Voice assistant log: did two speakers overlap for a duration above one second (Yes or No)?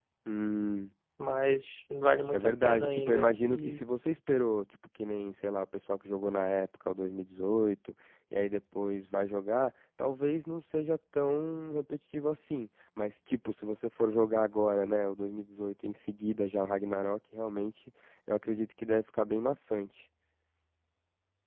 Yes